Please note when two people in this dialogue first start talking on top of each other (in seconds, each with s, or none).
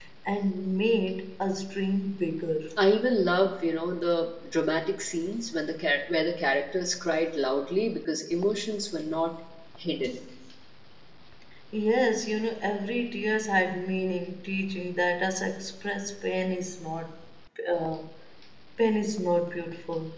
none